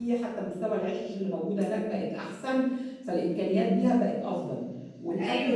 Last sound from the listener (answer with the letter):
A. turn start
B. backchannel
B